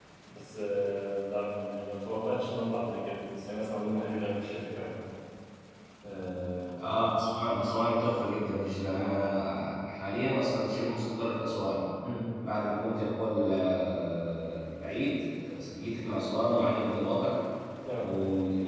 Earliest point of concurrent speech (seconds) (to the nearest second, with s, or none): none